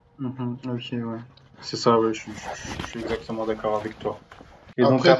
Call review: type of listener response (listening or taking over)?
listening